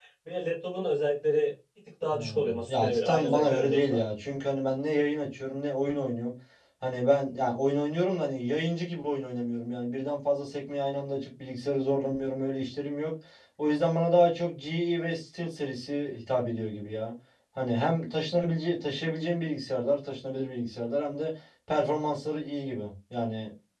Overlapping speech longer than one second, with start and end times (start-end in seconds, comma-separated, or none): 2.1-4.0